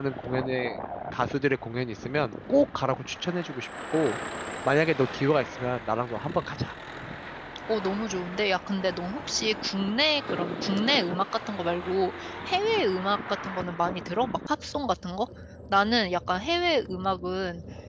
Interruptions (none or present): none